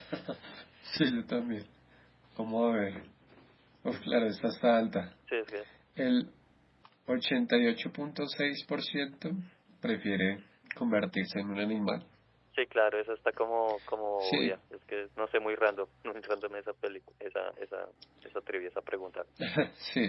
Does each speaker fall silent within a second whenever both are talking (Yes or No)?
Yes